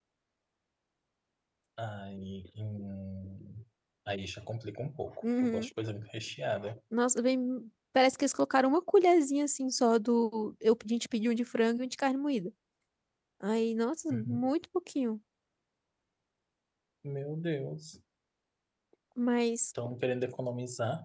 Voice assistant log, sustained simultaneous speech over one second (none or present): none